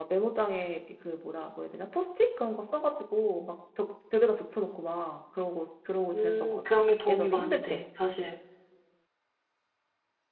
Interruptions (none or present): present